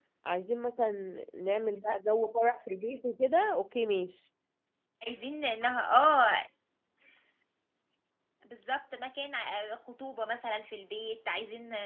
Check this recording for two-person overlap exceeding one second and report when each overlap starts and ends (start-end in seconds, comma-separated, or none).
none